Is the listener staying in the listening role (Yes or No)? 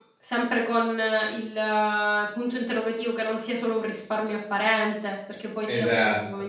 No